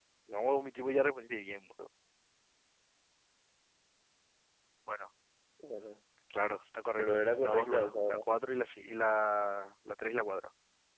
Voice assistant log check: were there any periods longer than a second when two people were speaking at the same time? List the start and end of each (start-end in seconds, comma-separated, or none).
7.0-8.2